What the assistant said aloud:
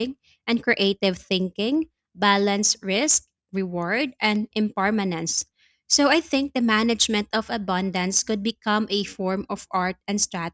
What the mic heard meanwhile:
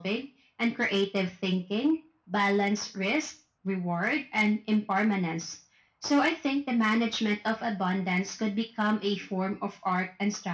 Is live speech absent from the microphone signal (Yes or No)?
Yes